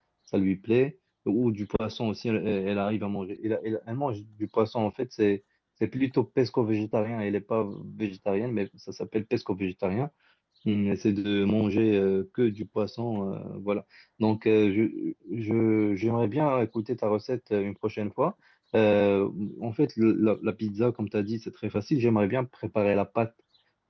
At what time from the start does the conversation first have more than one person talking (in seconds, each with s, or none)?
none